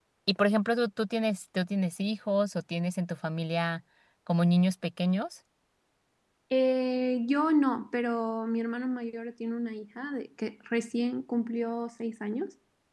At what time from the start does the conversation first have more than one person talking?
none

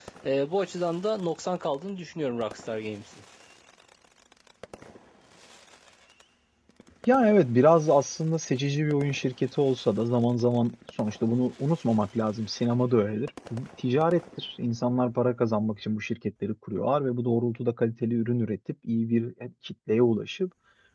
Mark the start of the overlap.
none

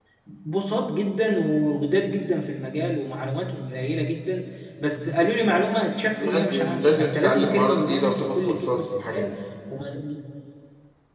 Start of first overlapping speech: 6.2 s

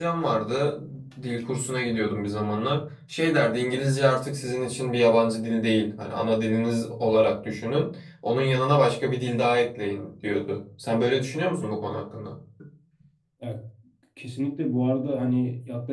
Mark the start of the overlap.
none

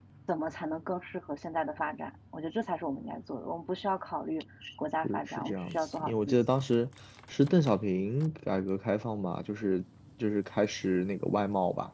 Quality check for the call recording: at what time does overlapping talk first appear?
5.0 s

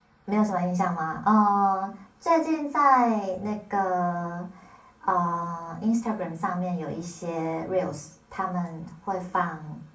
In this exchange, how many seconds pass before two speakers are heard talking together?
none

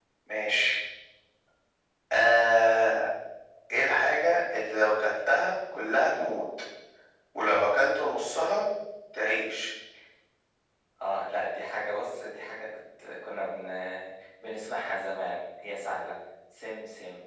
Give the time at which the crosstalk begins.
none

